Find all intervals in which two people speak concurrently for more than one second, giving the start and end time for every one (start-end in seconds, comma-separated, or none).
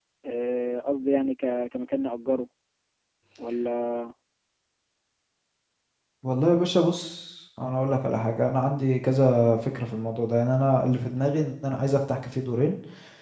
none